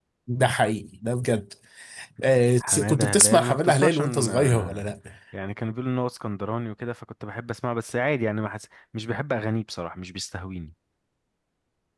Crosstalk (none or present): present